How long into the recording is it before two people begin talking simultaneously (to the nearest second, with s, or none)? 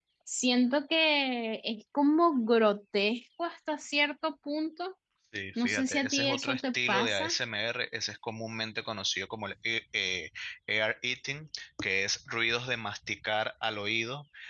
6 s